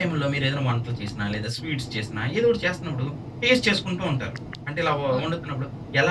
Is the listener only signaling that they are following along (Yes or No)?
Yes